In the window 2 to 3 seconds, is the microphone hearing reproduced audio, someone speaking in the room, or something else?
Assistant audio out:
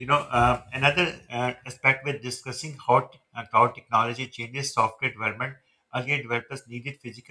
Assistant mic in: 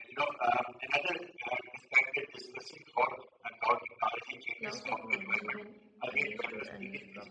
echo only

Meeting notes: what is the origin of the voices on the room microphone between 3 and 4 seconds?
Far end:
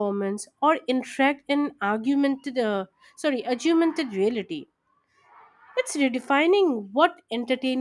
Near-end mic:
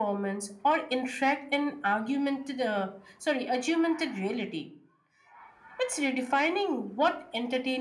echo only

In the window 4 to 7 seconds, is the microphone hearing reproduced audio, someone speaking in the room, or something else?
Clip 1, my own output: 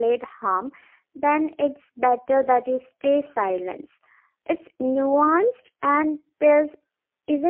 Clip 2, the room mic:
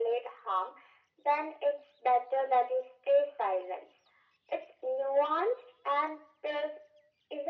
echo only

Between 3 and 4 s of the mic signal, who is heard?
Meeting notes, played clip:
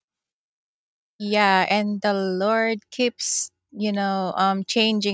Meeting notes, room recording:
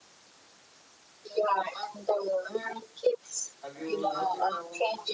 both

